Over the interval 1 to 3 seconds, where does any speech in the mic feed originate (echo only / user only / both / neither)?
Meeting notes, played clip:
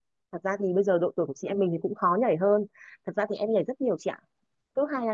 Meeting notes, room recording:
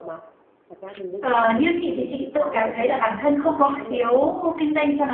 both